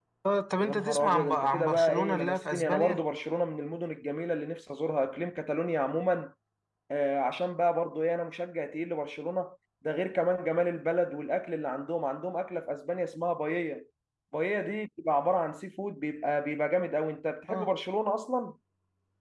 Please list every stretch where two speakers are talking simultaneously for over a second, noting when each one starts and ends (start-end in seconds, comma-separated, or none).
0.6-3.0